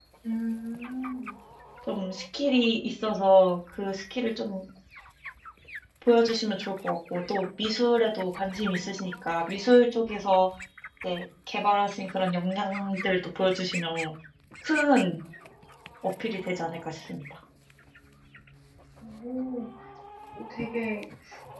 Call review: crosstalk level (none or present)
none